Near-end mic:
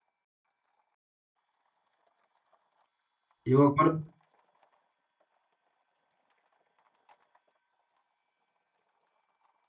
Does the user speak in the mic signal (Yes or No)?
Yes